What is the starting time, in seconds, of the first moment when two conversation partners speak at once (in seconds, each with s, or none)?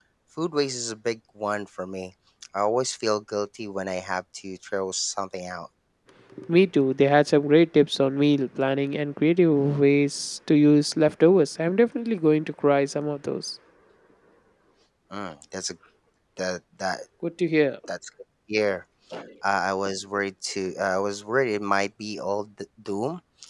none